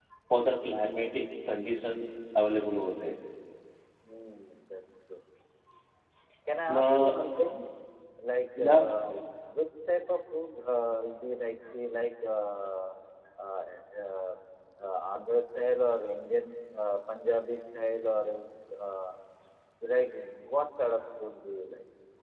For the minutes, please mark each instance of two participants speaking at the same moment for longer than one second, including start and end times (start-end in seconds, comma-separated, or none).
none